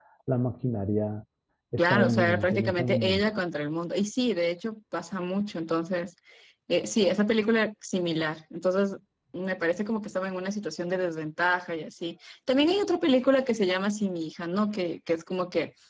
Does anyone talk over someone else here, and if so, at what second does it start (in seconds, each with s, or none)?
1.8 s